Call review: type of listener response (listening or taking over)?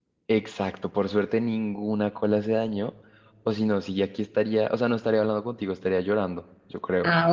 taking over